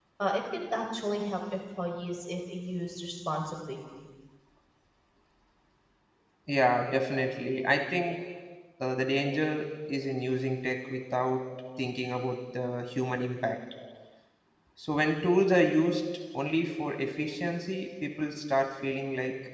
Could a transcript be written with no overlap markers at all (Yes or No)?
Yes